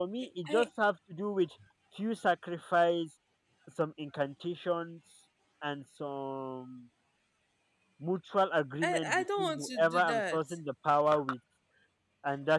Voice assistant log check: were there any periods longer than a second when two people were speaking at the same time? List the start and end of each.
8.8-10.6

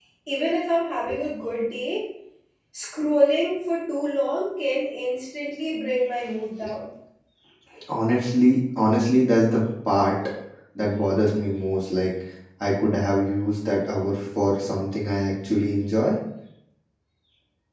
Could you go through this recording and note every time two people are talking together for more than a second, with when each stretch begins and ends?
none

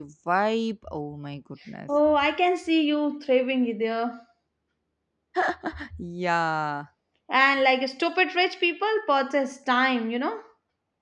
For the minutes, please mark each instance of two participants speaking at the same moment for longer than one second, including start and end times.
none

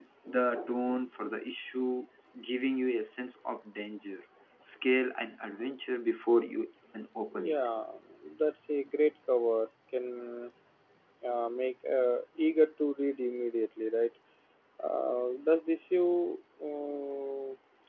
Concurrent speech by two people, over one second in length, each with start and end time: none

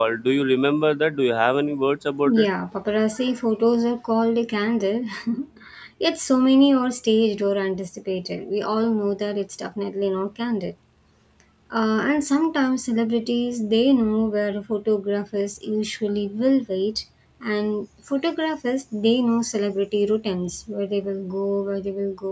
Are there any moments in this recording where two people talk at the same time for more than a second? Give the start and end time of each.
none

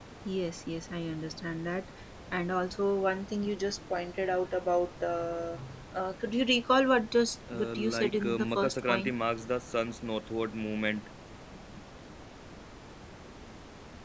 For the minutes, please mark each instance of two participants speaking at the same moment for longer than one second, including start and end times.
7.5-9.1

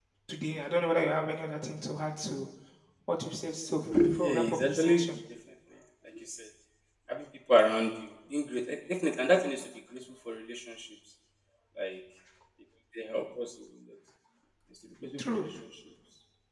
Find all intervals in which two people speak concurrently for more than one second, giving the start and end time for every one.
3.9-5.2

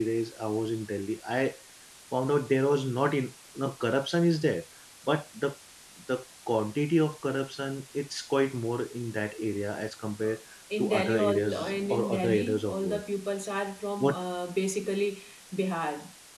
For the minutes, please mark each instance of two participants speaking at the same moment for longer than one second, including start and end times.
10.8-13.0

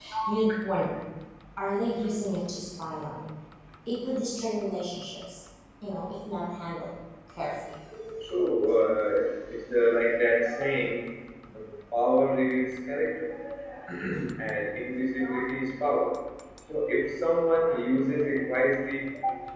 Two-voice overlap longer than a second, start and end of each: none

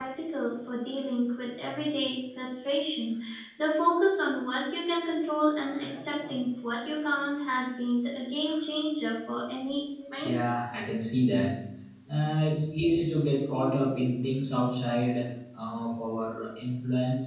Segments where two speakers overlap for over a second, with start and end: none

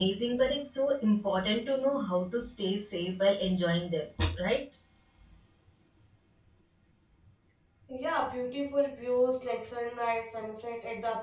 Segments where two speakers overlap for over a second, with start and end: none

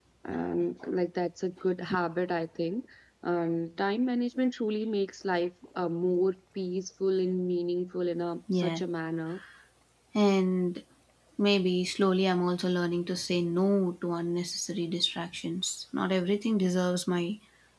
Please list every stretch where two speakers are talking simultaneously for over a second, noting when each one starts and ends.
none

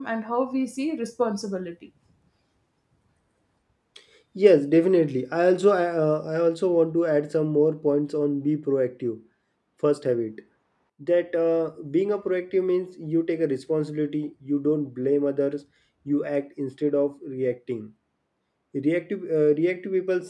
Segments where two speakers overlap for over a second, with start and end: none

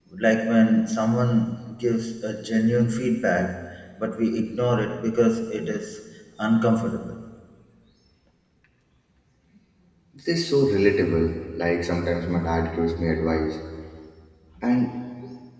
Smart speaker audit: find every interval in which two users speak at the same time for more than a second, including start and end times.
none

